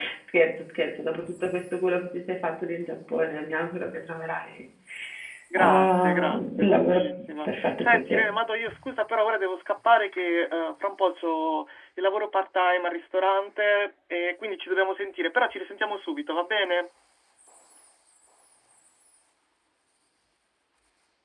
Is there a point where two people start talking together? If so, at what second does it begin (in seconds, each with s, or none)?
5.6 s